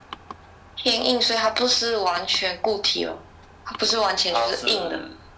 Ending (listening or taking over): taking over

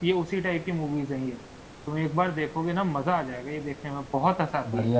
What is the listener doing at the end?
taking over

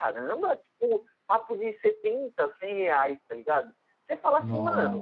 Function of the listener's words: listening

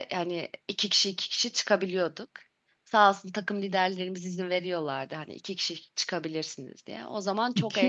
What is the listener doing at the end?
taking over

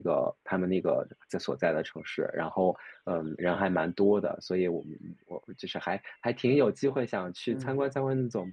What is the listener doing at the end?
listening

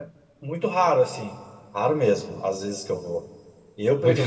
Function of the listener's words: listening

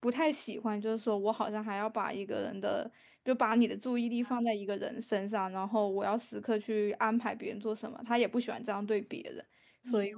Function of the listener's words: taking over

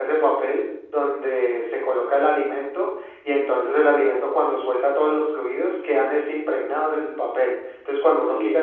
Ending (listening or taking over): listening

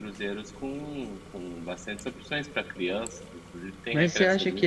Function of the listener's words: taking over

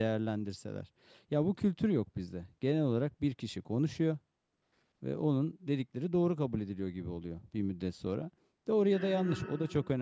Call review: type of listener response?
listening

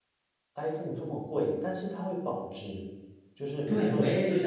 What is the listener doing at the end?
taking over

